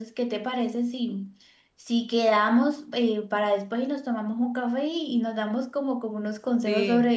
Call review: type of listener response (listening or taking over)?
listening